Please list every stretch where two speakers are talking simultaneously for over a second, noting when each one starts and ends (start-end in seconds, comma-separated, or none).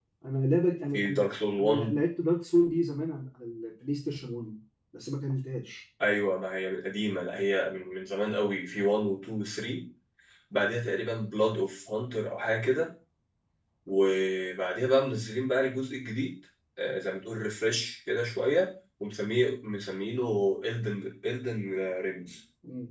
none